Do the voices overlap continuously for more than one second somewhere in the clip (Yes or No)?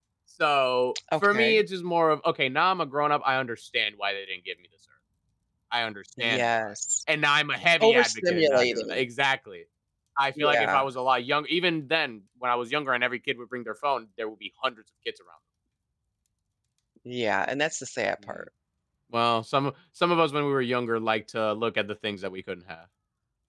Yes